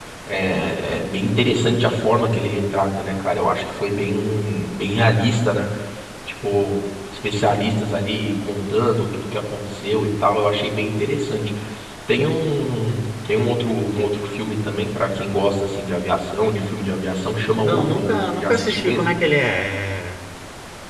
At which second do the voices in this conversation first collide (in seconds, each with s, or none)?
17.6 s